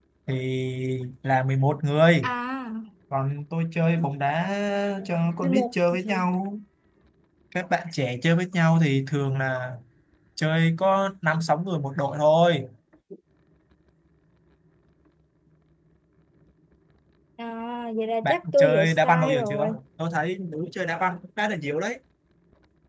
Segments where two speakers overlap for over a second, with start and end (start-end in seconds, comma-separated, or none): 18.2-19.8